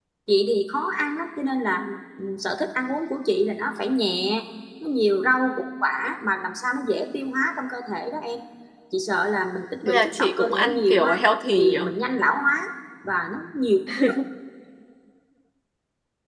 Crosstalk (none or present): present